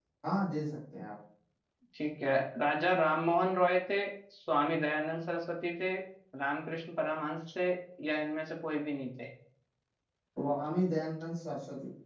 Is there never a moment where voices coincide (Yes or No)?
Yes